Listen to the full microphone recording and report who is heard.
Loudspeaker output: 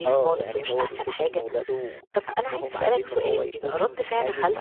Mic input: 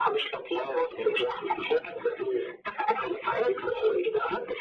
echo only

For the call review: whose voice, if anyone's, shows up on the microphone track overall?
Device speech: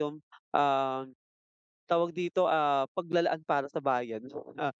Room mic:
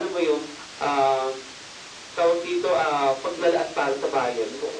echo only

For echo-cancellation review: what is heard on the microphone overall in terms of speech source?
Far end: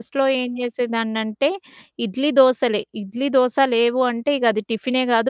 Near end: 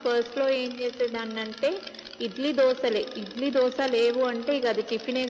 echo only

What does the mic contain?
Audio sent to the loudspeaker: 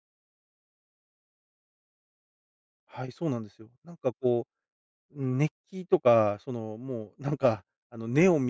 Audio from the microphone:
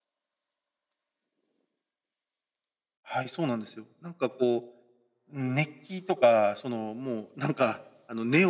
echo only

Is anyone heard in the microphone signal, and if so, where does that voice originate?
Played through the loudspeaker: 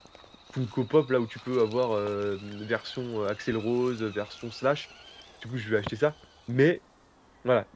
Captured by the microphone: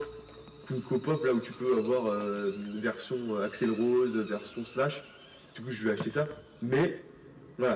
echo only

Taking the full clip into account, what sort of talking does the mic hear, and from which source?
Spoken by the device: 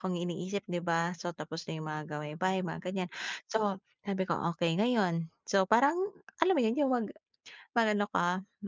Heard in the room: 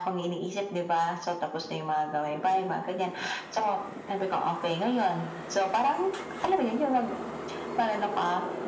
echo only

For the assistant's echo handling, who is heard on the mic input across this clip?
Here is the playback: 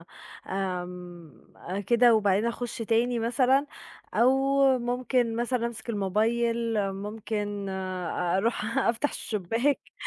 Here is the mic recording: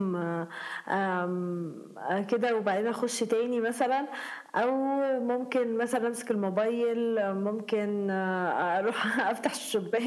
echo only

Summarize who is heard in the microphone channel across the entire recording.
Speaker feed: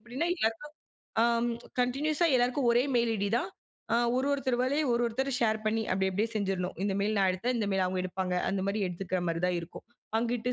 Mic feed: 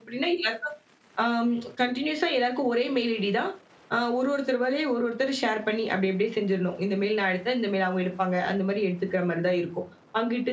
echo only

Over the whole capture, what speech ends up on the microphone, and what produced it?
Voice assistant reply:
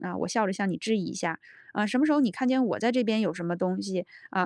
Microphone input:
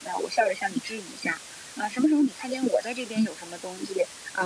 echo only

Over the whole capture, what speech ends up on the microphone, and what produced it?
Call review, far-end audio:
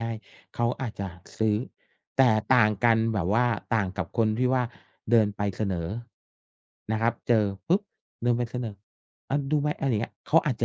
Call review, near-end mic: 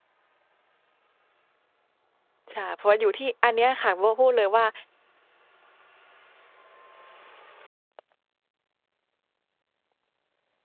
user only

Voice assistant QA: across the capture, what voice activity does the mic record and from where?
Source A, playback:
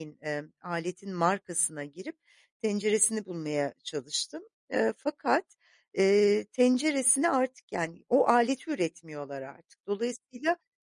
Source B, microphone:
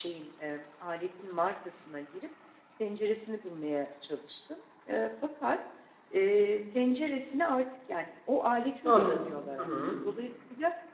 both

